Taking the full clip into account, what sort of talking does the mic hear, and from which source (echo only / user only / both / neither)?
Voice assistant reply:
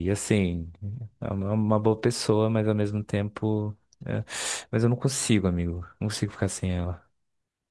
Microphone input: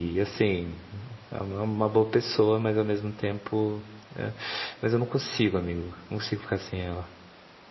echo only